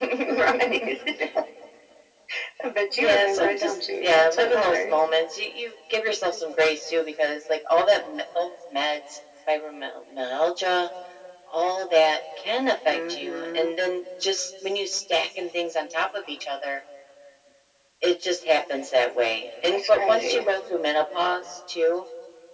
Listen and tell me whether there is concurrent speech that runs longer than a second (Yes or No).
Yes